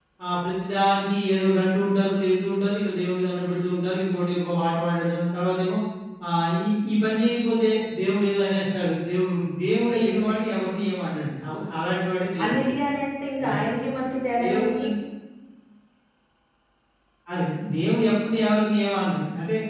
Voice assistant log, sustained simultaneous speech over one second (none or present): none